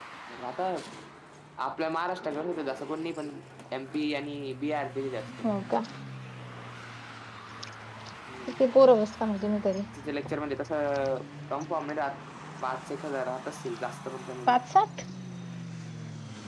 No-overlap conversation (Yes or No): Yes